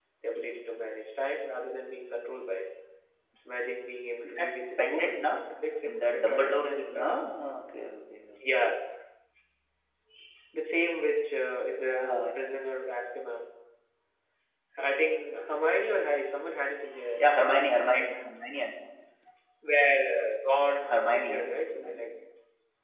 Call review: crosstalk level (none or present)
present